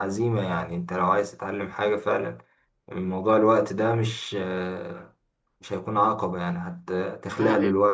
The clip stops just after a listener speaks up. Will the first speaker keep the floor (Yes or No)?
Yes